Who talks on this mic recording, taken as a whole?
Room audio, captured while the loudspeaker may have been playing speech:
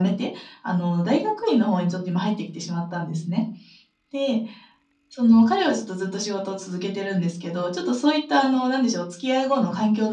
echo only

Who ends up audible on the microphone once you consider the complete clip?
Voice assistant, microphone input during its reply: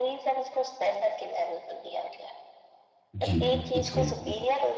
both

